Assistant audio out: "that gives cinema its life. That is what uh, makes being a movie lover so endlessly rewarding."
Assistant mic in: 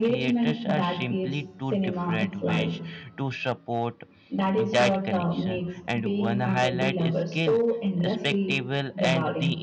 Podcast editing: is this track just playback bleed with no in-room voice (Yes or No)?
No